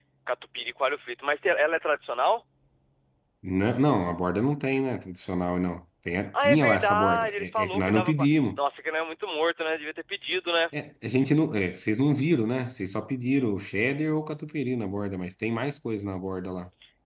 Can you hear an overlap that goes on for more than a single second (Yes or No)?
Yes